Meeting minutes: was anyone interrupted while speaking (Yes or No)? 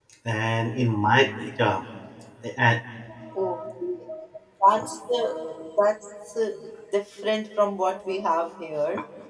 No